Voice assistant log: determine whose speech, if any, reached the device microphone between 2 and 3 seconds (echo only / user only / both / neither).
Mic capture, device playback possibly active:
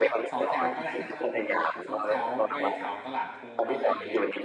both